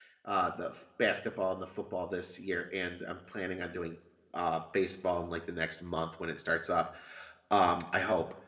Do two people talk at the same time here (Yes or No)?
No